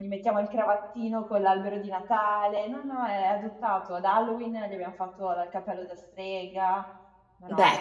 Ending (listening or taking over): taking over